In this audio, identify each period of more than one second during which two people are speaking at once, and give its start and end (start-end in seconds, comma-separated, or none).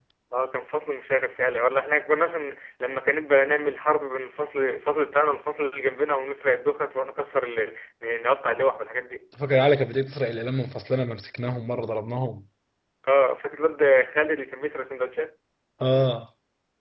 none